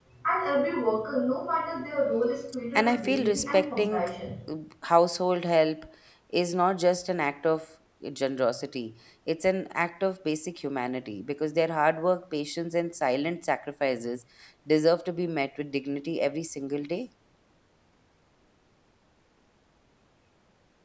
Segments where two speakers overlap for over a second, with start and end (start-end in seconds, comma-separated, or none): 2.8-4.0